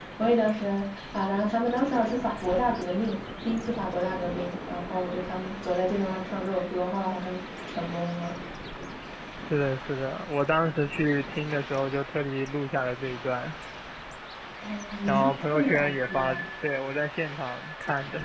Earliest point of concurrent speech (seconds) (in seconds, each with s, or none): 15.1 s